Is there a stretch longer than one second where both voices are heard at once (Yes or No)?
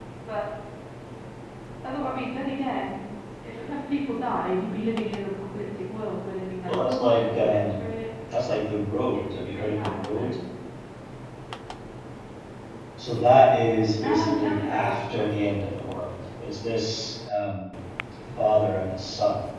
Yes